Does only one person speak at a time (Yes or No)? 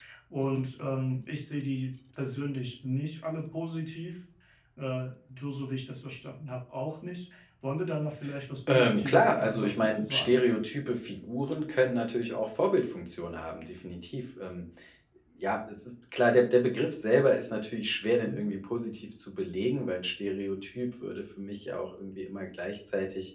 No